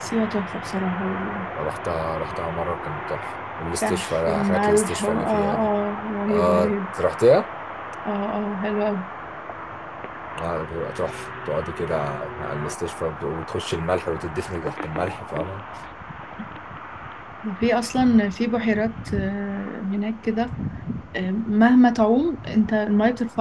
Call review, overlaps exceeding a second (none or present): present